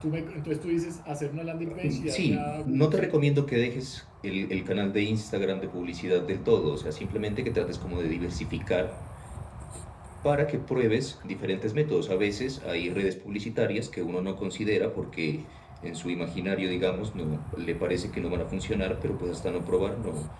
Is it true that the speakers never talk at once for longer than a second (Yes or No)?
No